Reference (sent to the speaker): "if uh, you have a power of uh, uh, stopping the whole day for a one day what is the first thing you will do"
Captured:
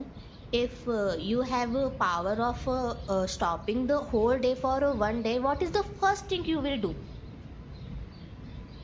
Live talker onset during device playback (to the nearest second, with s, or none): none